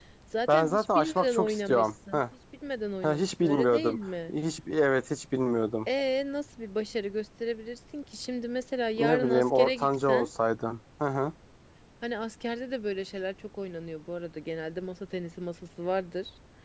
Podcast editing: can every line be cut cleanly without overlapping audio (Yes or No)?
No